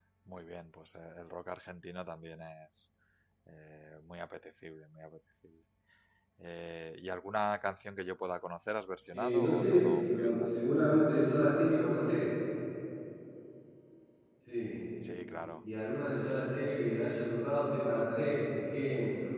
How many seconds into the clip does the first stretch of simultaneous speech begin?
9.1 s

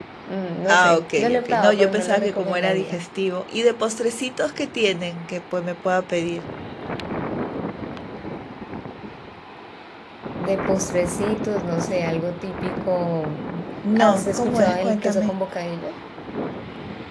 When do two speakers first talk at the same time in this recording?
0.7 s

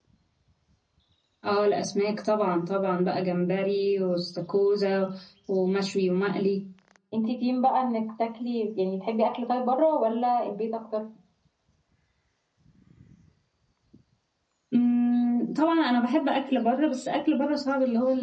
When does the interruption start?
none

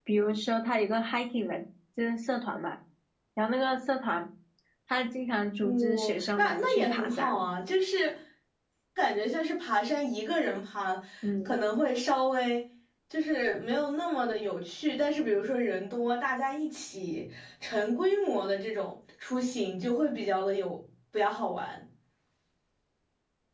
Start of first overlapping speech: 5.6 s

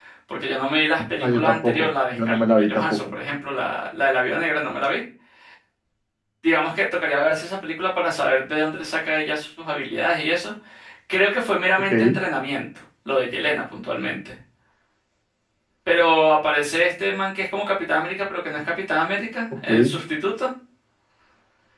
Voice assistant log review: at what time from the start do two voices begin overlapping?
1.2 s

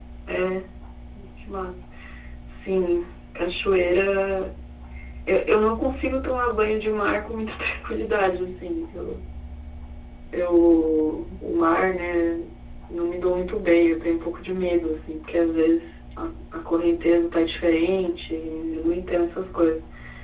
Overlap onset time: none

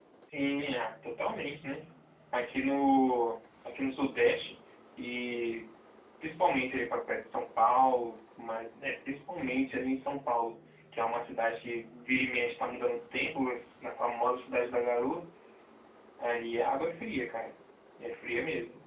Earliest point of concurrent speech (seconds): none

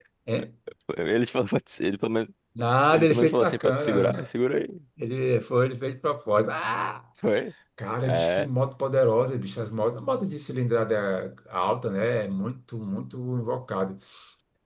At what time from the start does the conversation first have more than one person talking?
2.9 s

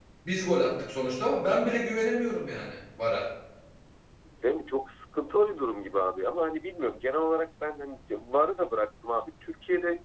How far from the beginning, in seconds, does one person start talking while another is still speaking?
none

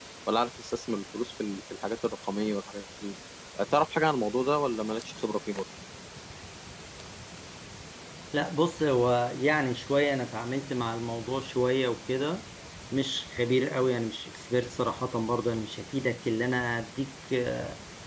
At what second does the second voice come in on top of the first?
none

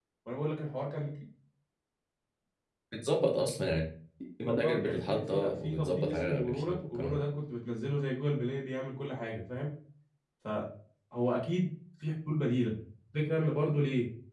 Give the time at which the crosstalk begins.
4.5 s

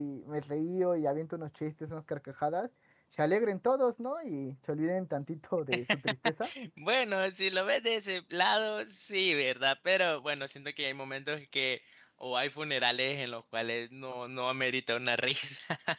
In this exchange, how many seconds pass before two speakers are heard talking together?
none

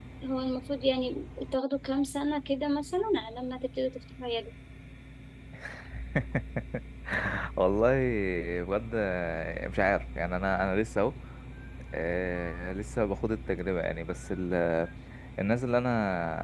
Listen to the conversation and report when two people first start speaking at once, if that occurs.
none

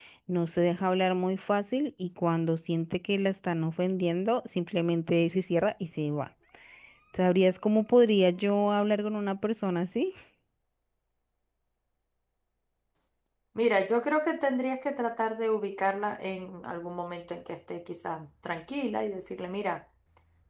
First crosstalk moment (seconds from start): none

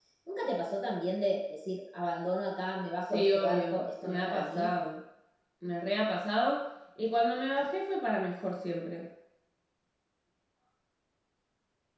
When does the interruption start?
3.1 s

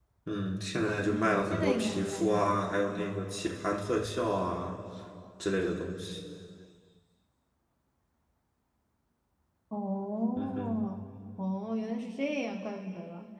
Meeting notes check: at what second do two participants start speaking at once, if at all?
1.1 s

